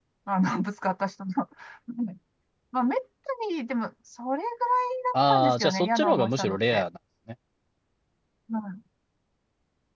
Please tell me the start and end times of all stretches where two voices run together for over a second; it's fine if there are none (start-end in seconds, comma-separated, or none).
5.1-6.8